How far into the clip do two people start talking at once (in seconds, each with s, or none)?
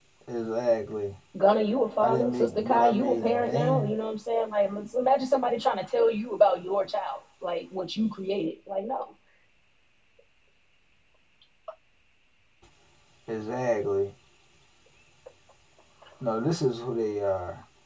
2.0 s